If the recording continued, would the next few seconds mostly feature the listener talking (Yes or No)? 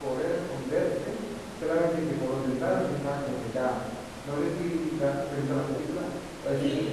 Yes